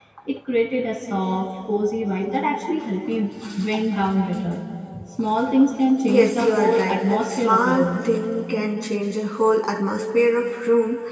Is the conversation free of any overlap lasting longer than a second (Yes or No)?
No